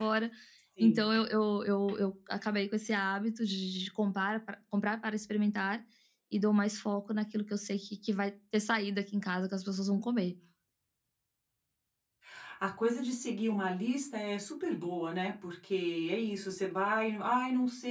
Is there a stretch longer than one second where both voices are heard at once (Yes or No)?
No